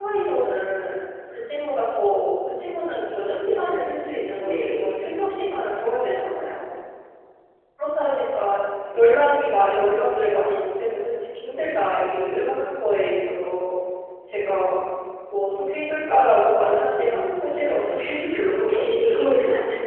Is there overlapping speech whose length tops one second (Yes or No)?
Yes